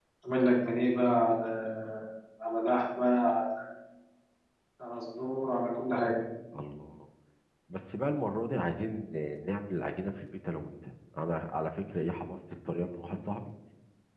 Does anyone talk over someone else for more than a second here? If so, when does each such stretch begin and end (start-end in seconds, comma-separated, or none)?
none